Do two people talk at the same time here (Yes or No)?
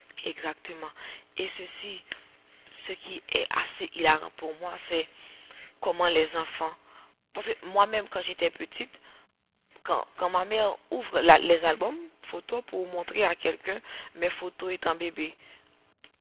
No